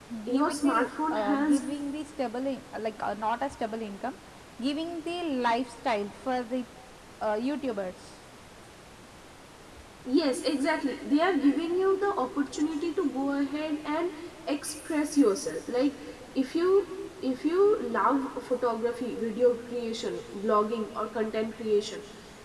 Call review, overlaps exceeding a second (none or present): present